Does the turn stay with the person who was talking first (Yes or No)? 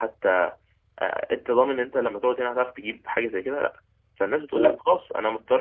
Yes